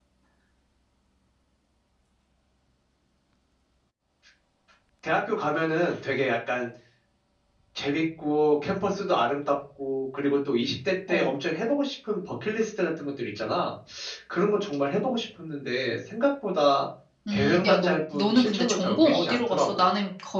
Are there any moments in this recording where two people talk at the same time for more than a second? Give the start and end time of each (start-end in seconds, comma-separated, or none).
17.3-19.9